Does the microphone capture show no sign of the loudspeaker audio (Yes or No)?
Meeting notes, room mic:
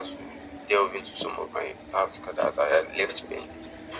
No